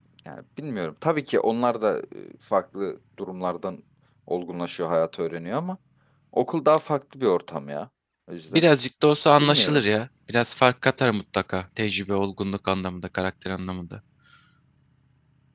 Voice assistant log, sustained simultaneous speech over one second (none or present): none